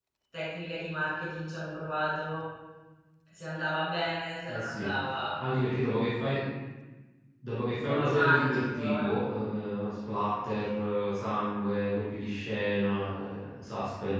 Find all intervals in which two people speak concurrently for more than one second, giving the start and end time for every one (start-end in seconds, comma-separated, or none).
7.7-9.1